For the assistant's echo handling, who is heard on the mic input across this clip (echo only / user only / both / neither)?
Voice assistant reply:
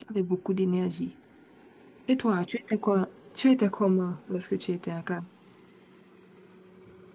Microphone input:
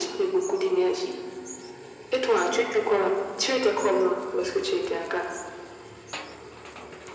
echo only